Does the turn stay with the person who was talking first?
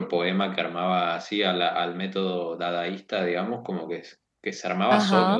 Yes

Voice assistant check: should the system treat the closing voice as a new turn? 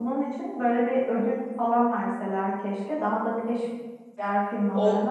Yes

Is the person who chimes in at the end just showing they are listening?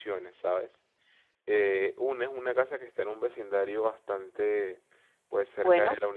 Yes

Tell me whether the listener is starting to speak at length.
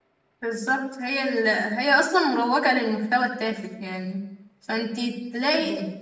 No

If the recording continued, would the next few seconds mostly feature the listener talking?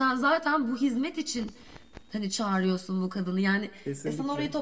No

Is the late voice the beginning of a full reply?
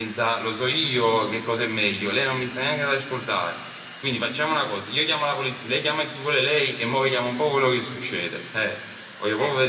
Yes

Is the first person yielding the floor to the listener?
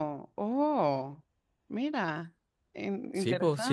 Yes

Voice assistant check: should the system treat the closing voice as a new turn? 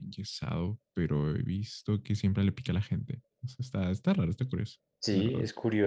Yes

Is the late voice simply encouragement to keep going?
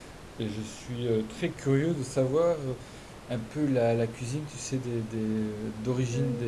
Yes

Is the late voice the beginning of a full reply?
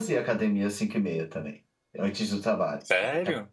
Yes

